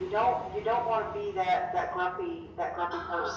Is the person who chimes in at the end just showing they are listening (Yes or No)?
No